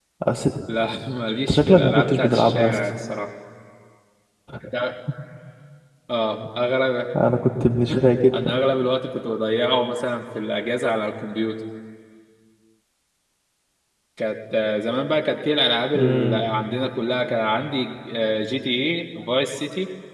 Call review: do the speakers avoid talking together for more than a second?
No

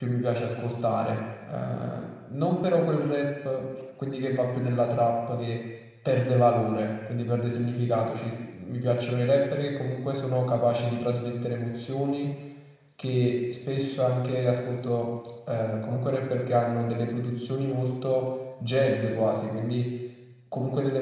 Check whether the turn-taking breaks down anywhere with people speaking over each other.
No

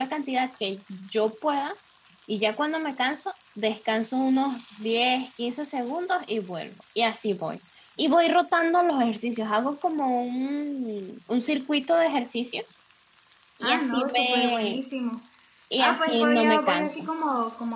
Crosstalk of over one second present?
Yes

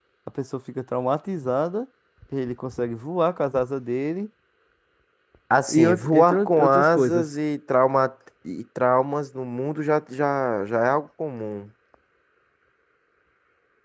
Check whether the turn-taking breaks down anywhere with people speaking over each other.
Yes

